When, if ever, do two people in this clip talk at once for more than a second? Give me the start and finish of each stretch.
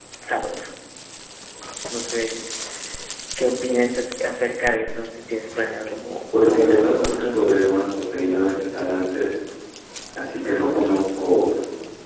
6.5-7.7

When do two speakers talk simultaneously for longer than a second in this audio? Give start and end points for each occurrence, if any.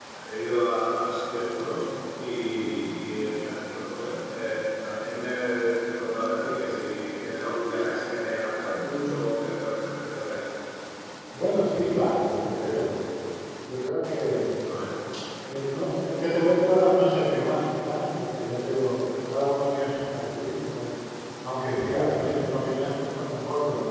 none

